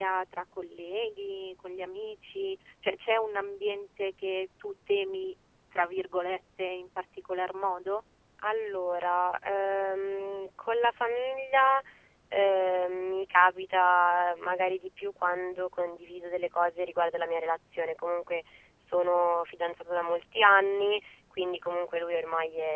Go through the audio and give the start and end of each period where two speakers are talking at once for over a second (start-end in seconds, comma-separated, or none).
none